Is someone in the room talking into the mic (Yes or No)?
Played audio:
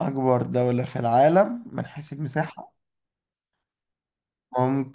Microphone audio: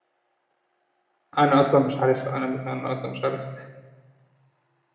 Yes